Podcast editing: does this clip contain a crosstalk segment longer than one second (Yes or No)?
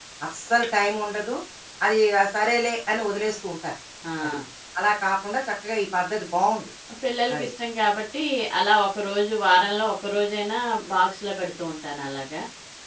No